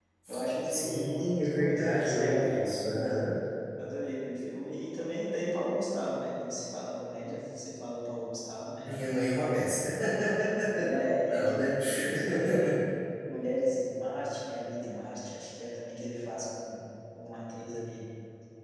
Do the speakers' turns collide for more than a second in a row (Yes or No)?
Yes